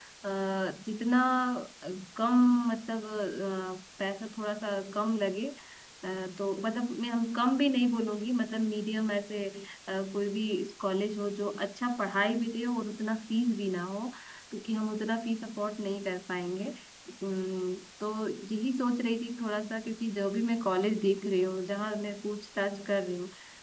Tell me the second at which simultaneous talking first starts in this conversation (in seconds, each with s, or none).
none